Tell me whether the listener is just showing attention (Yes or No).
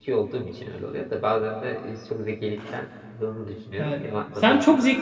No